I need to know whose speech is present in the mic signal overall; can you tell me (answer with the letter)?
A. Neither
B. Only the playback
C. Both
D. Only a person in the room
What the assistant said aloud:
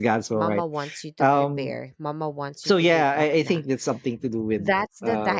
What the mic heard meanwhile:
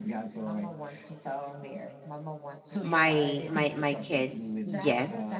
C